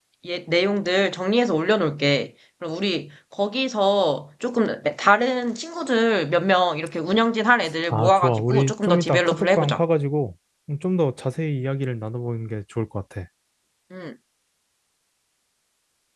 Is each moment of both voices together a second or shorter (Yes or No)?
No